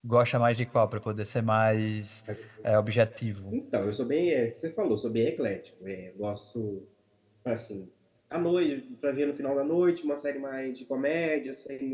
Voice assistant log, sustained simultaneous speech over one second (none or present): none